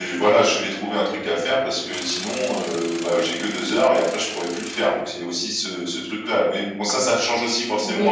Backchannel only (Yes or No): No